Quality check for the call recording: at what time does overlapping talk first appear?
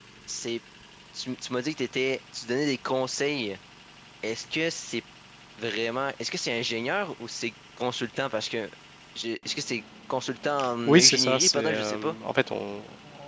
10.9 s

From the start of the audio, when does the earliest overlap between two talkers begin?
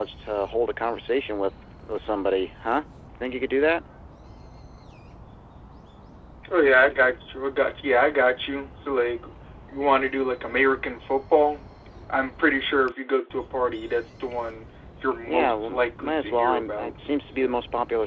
15.2 s

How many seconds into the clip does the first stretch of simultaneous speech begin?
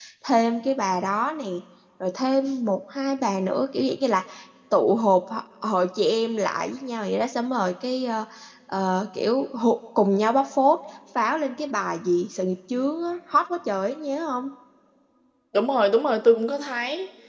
none

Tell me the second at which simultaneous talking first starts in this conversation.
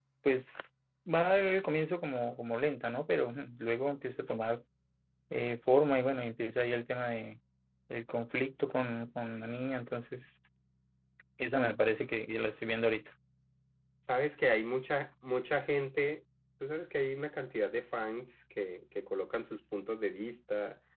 none

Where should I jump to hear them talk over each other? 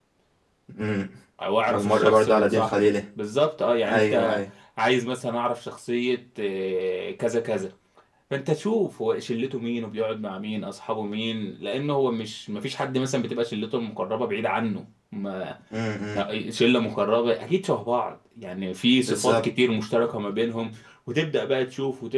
1.7 s

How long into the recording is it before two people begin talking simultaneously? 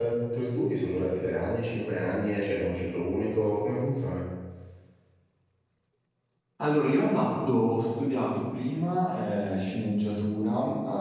none

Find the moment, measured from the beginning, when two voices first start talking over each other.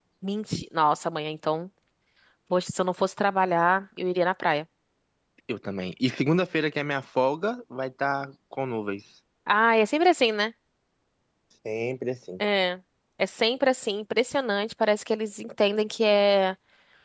none

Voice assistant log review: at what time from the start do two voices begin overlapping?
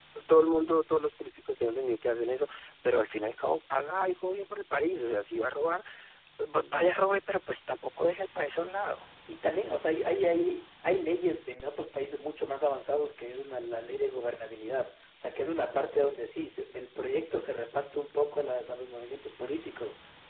none

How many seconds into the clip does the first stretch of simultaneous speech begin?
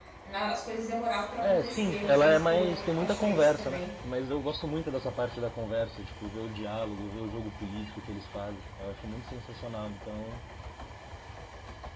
1.4 s

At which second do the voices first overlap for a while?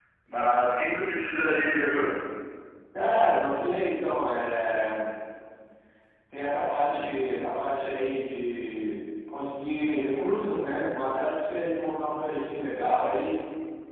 none

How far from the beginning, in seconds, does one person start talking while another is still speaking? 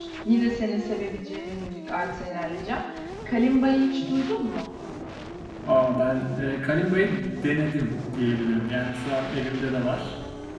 none

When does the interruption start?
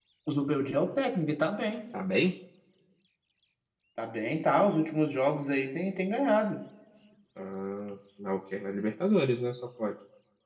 none

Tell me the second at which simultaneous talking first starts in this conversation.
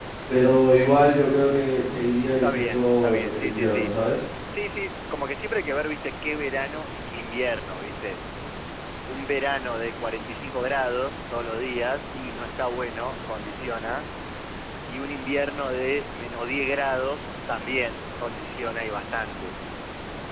2.4 s

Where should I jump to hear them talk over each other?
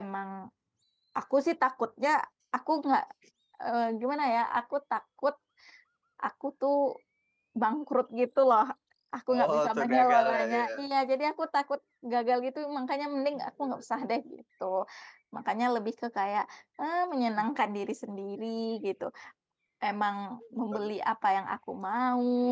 9.3 s

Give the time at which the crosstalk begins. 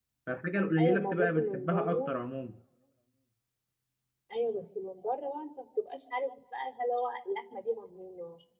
0.8 s

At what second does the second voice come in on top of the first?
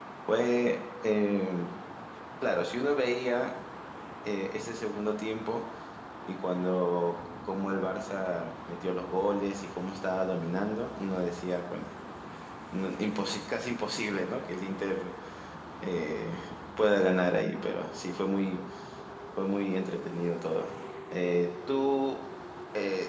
none

